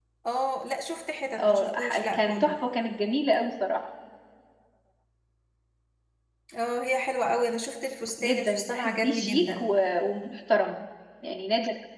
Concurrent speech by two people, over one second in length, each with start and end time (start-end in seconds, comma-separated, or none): 1.4-2.6, 8.2-9.6